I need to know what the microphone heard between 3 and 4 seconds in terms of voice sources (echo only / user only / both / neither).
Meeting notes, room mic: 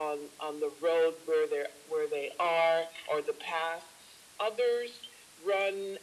echo only